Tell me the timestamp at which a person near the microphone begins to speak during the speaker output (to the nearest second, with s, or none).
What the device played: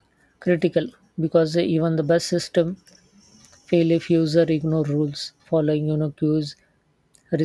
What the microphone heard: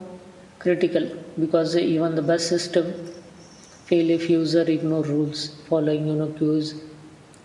none